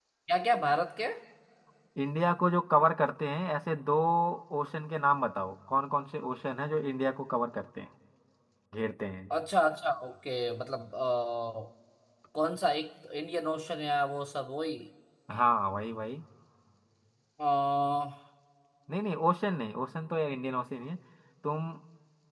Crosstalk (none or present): none